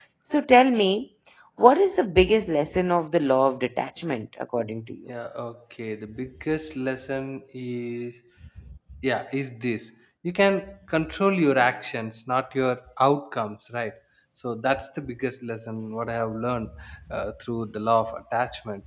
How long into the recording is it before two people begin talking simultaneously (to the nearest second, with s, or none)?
none